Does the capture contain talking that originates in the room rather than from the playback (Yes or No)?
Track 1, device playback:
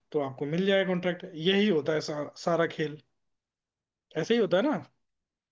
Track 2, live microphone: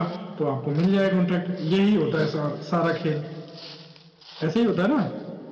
No